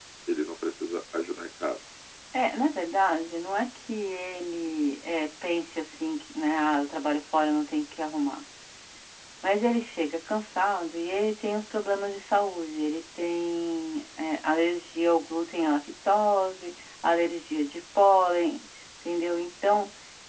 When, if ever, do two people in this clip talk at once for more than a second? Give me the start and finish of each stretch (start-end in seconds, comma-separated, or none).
none